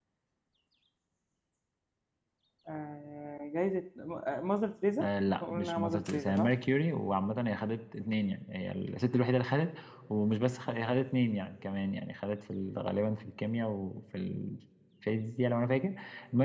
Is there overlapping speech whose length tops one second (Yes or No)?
Yes